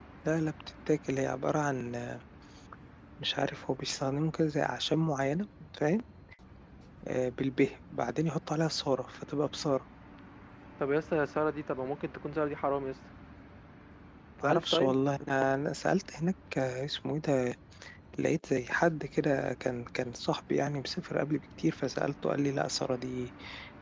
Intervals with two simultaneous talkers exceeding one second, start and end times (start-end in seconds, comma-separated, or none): none